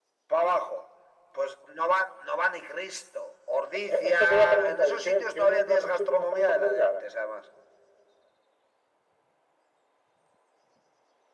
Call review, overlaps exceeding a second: present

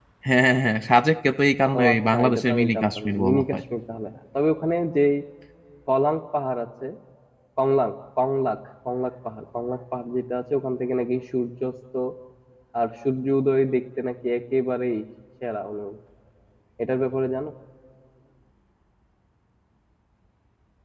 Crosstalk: present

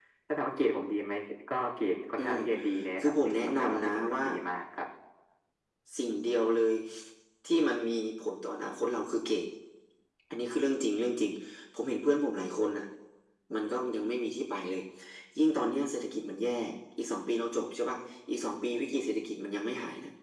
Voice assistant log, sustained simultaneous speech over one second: present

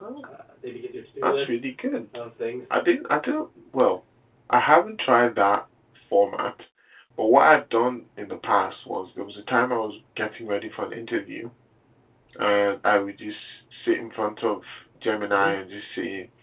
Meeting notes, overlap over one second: none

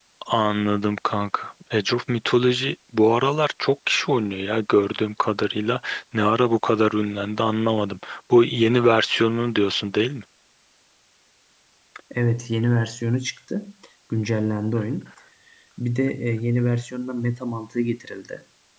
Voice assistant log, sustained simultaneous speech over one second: none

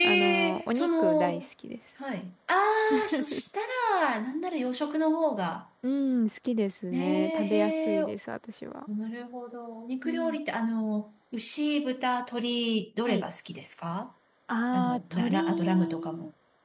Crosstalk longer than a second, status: present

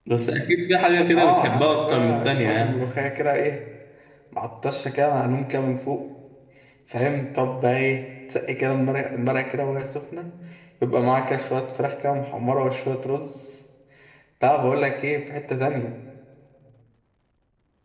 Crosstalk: present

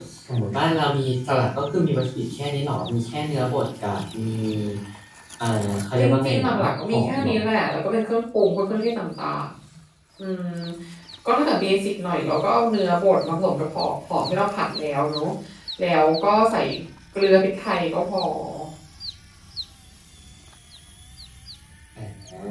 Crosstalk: present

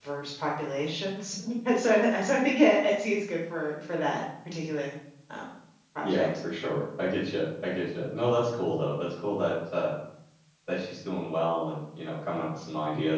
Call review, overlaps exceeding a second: none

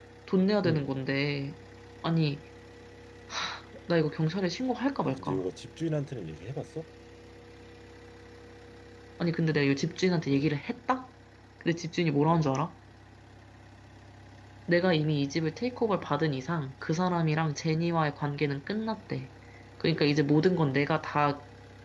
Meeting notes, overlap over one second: none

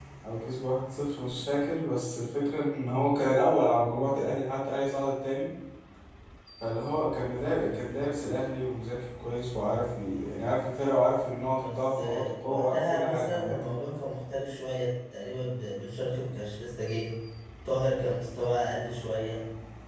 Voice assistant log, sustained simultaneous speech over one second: present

